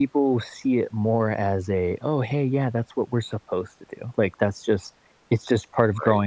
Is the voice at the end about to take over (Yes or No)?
No